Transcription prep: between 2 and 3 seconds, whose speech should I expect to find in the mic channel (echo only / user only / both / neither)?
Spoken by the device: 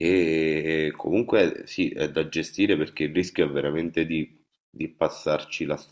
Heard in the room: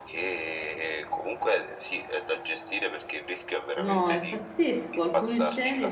echo only